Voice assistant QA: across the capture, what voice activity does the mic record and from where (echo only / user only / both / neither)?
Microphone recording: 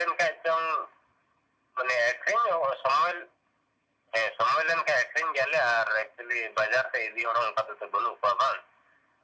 echo only